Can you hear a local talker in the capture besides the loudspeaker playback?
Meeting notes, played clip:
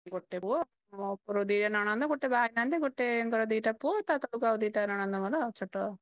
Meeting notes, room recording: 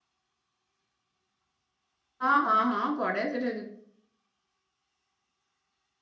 Yes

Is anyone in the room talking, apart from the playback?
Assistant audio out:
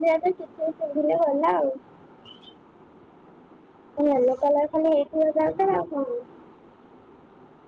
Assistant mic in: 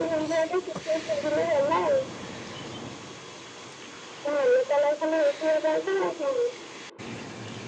No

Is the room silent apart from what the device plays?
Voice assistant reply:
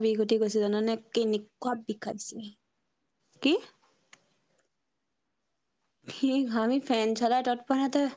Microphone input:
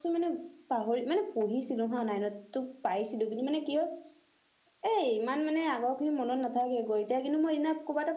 No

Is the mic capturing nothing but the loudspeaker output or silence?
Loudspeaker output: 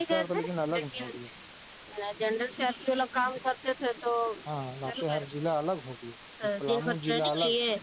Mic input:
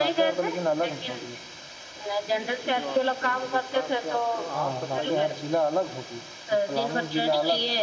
No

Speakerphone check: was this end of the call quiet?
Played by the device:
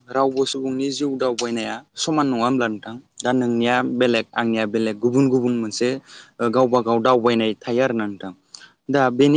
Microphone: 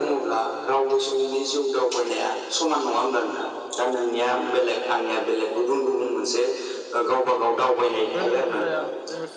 No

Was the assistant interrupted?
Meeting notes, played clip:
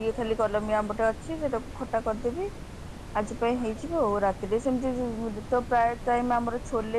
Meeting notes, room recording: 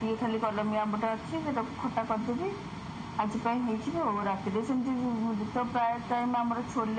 No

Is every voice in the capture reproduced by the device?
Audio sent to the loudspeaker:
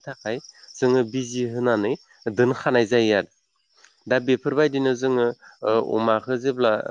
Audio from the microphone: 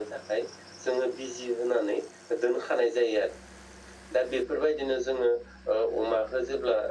Yes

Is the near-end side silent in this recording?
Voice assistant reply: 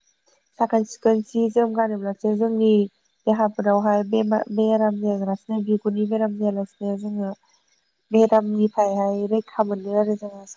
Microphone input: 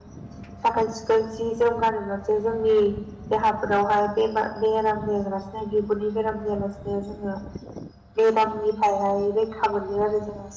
Yes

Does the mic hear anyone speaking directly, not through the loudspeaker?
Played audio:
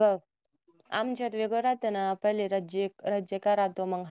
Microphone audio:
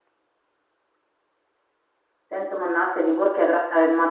Yes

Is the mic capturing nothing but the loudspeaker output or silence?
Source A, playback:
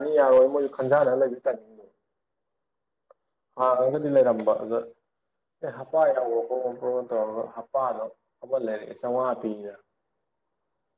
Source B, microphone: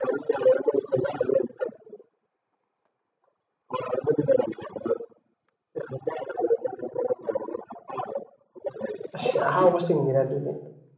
No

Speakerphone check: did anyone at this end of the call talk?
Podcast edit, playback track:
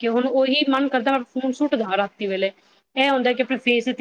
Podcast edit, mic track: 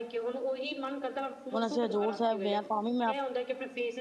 Yes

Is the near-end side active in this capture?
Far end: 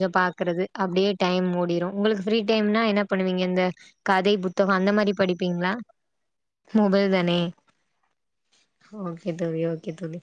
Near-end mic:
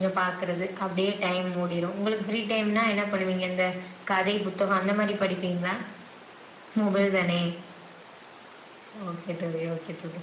No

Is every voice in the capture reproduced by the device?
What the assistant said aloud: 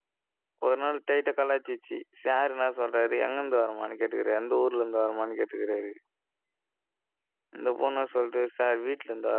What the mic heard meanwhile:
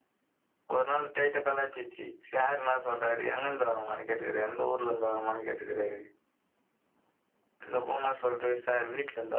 Yes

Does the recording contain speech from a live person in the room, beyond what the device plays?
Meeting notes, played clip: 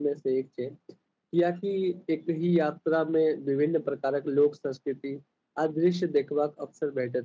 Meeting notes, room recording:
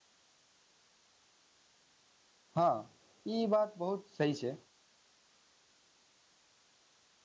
Yes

